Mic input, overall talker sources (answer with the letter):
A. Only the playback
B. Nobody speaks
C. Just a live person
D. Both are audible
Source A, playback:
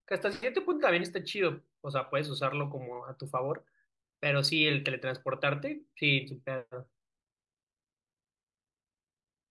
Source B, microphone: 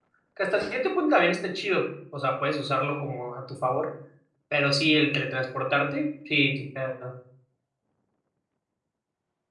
A